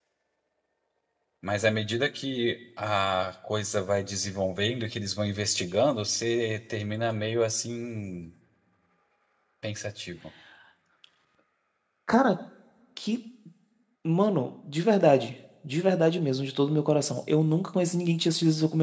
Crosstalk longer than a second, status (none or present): none